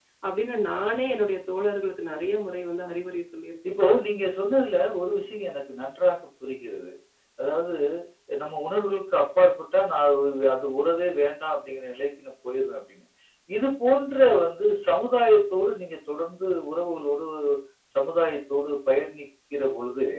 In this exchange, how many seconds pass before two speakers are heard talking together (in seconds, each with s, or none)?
none